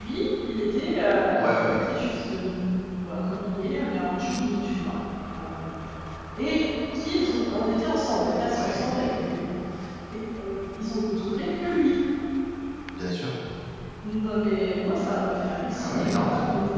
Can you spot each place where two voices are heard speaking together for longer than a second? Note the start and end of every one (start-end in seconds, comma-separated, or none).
none